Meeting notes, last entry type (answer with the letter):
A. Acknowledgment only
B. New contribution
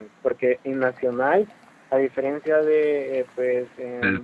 B